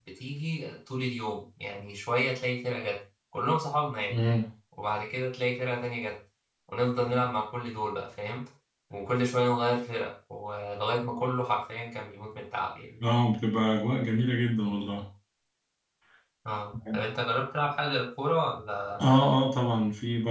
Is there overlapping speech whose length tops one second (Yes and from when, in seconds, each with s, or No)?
No